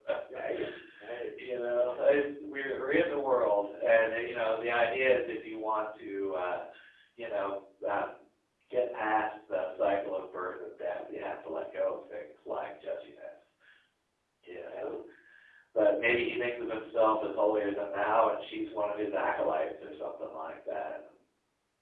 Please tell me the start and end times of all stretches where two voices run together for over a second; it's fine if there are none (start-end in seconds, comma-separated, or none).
none